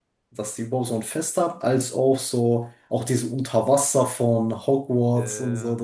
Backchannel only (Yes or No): Yes